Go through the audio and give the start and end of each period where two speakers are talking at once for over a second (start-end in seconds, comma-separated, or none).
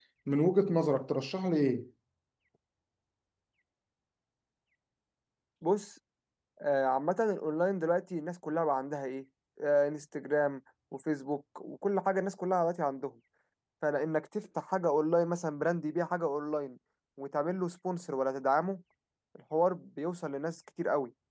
none